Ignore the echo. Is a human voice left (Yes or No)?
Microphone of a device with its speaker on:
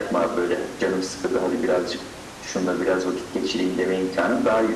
No